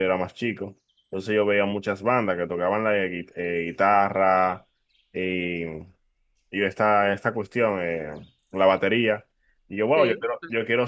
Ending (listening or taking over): listening